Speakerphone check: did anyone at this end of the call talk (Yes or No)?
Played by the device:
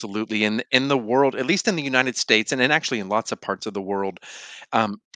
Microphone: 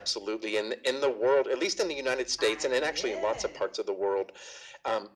Yes